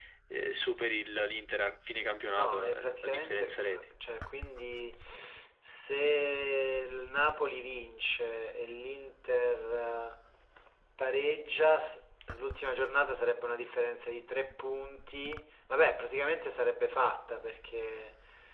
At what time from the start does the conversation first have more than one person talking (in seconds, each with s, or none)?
2.2 s